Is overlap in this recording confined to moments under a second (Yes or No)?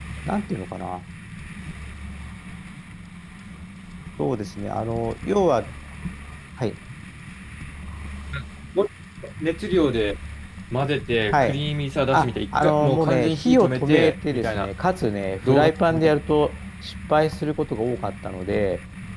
No